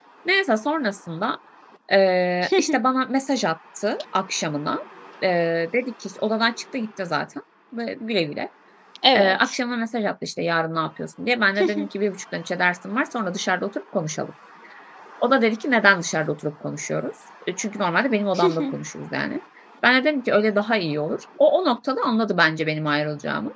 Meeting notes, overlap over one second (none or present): none